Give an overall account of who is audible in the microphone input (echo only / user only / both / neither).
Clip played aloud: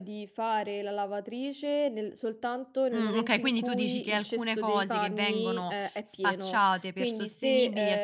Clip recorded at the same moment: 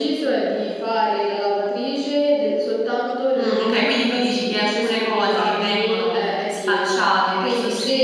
echo only